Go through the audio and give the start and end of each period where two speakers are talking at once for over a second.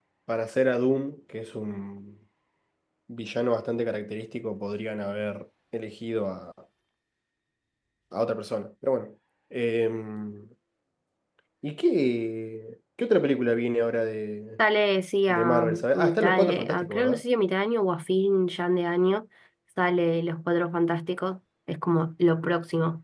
15.3-17.2

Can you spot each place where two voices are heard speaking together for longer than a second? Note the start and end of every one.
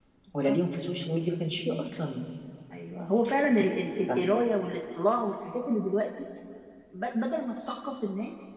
none

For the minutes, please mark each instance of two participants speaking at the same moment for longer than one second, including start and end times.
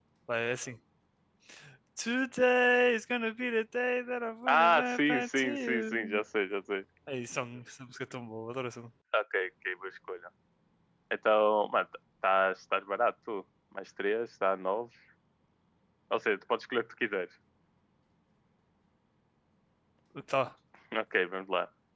4.5-6.2

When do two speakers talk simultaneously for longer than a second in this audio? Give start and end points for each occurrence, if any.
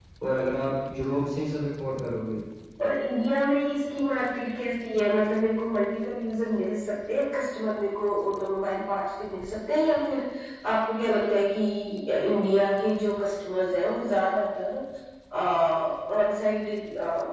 none

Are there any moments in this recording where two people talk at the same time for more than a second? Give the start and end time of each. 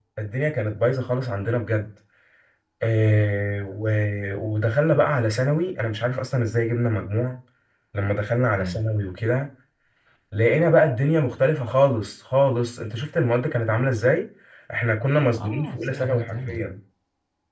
15.3-16.6

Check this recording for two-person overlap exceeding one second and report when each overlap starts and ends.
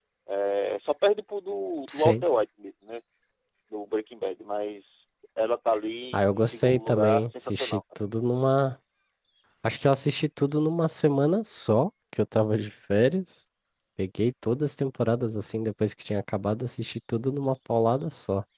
6.1-7.8

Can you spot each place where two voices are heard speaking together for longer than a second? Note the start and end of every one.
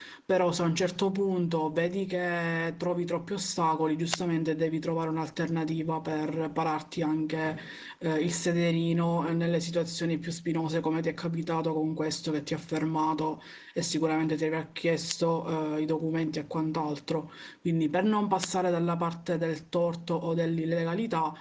none

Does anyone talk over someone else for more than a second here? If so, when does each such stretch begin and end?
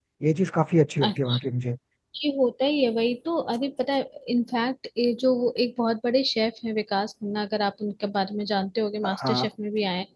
none

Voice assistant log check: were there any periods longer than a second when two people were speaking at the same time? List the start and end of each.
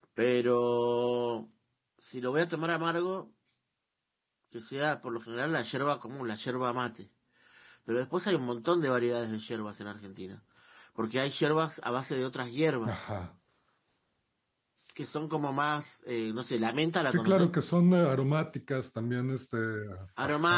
none

